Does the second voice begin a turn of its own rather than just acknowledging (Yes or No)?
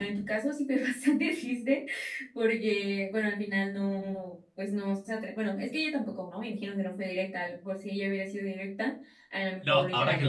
Yes